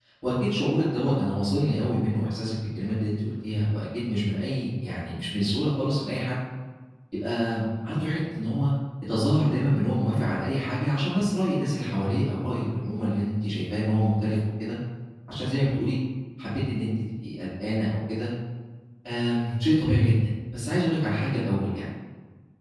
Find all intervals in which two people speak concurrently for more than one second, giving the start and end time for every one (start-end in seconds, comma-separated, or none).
none